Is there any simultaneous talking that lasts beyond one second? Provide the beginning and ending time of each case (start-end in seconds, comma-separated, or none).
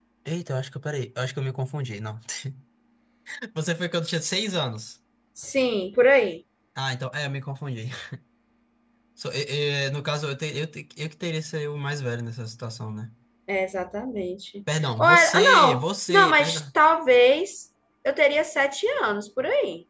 14.8-16.6